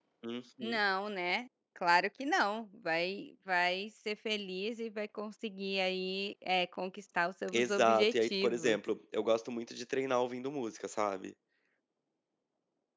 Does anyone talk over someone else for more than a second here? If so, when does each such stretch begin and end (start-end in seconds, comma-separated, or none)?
7.5-8.8